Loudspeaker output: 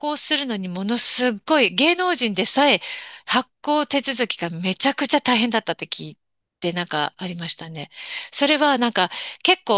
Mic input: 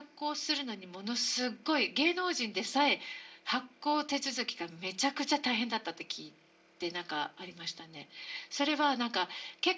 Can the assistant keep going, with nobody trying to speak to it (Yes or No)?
Yes